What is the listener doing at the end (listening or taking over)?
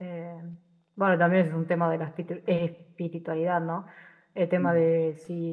listening